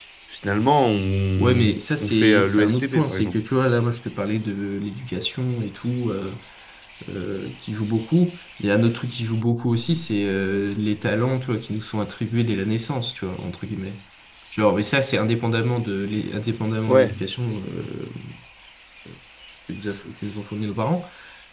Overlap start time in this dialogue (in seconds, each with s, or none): 1.4 s